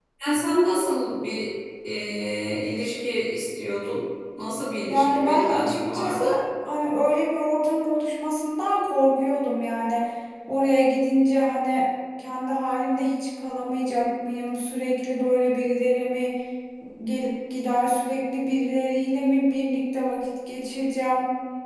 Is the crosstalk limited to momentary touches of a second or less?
No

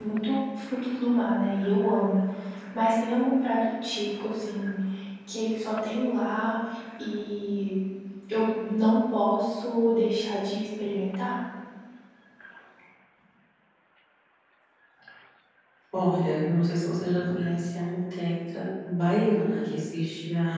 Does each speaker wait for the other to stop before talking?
Yes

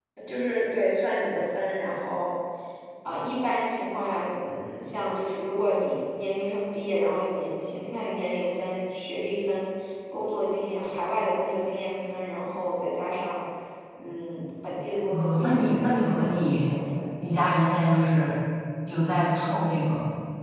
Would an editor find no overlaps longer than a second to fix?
No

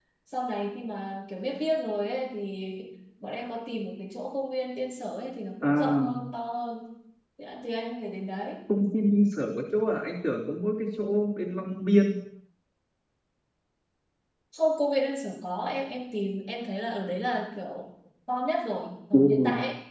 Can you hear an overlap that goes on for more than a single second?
No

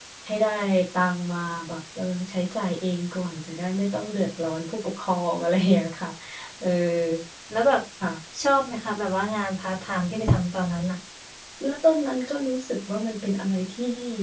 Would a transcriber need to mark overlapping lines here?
No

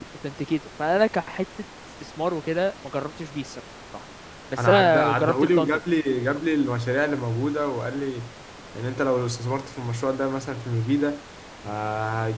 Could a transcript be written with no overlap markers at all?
No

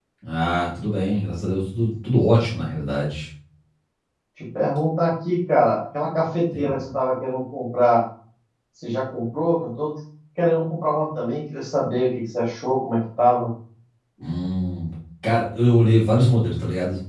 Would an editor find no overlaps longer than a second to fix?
Yes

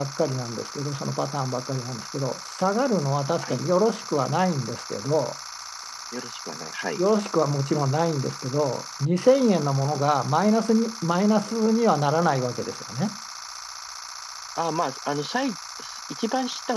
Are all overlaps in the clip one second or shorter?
Yes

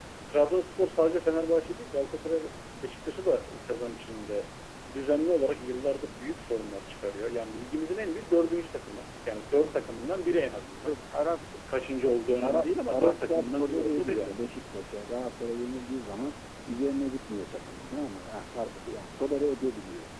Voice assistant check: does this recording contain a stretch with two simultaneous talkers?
Yes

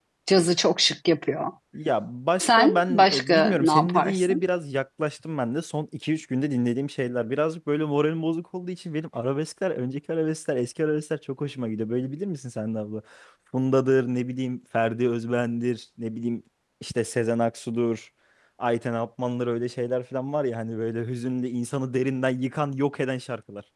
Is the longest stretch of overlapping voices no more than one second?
No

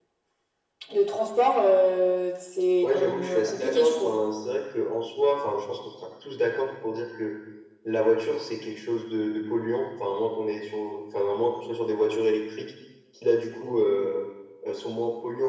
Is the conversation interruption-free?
No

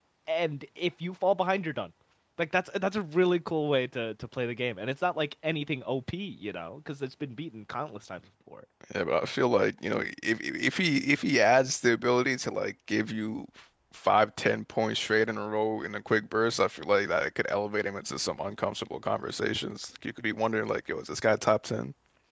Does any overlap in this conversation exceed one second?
No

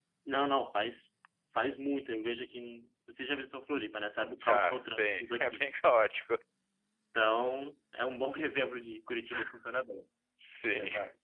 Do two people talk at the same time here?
Yes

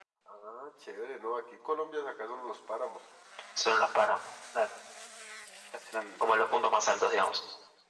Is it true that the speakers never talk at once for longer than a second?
Yes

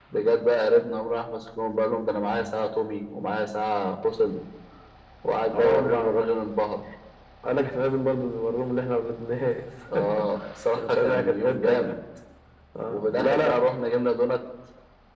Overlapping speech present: Yes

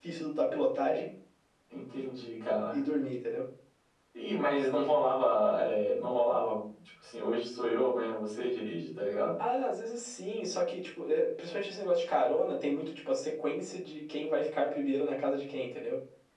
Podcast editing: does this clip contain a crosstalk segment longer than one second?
No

